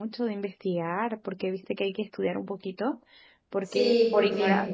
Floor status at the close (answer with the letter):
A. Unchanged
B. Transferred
B